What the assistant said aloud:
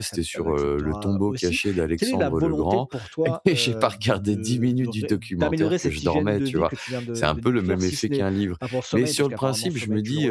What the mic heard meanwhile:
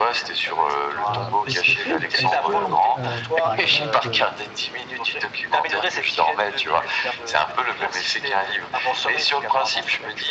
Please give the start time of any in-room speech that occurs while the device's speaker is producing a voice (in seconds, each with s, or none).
1.1 s